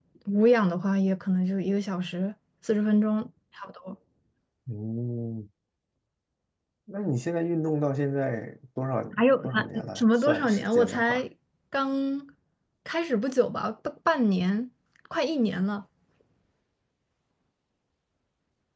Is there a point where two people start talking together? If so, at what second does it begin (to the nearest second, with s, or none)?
9 s